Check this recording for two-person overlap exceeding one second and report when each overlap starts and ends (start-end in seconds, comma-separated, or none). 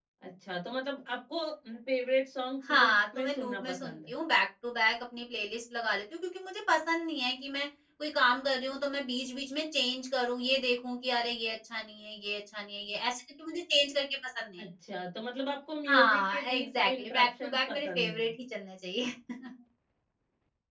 2.7-4.1, 15.9-18.3